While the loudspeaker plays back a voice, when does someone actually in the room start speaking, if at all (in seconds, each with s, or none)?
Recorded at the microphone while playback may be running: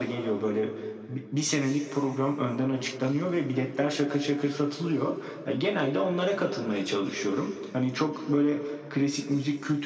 none